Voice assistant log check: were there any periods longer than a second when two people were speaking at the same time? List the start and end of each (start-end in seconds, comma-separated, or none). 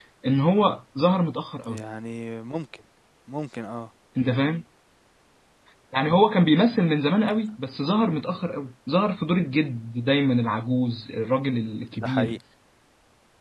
none